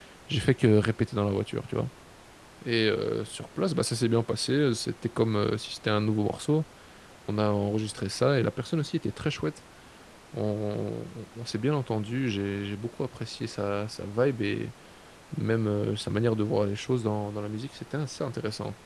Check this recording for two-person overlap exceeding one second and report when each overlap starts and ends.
none

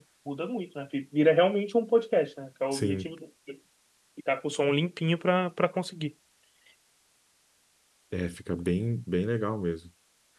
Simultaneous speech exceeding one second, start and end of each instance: none

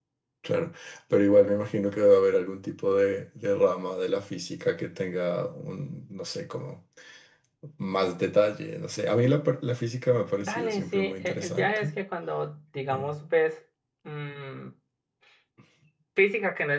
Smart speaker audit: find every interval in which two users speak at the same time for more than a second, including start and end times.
10.4-11.9

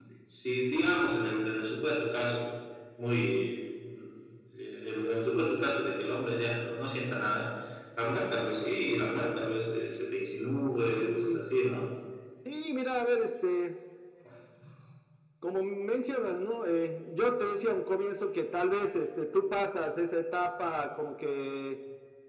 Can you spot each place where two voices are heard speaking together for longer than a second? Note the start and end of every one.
none

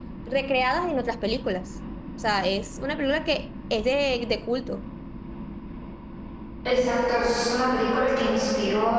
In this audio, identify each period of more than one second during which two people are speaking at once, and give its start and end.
none

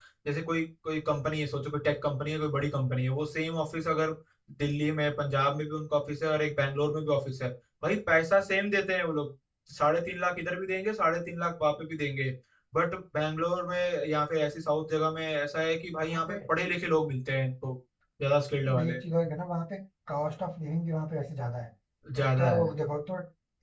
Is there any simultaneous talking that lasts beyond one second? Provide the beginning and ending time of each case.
none

